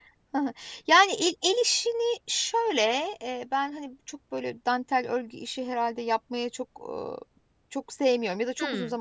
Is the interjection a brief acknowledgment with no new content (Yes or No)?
Yes